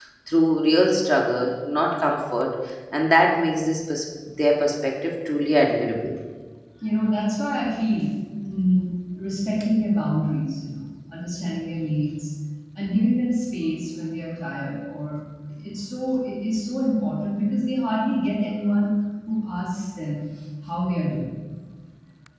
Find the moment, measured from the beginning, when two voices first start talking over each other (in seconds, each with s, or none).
none